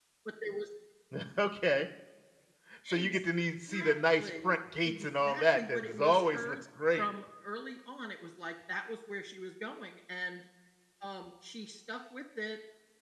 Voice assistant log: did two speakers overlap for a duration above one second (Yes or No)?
Yes